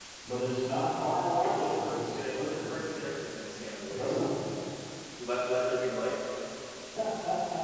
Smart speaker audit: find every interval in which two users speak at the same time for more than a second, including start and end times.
1.4-2.7

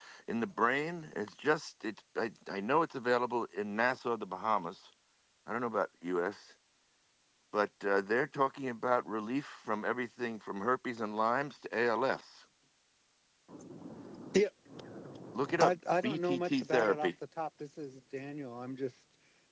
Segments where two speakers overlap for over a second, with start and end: 15.6-17.1

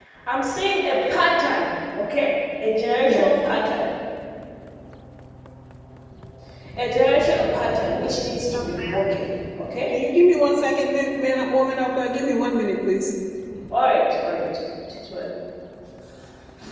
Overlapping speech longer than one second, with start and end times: none

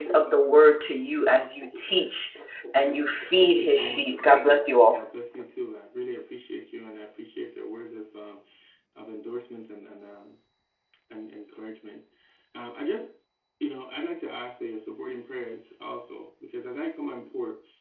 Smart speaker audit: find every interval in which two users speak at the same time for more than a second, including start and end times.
3.4-5.0

